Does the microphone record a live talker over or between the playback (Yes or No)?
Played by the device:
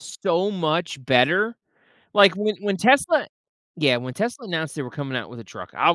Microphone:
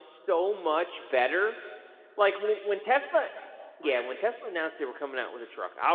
Yes